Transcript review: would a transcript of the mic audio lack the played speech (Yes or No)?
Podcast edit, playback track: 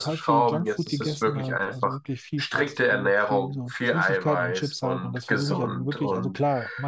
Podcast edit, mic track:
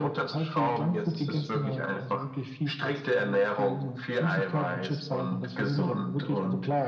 No